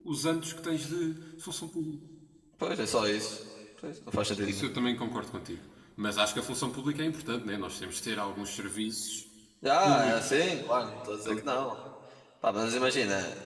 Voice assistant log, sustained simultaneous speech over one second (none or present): none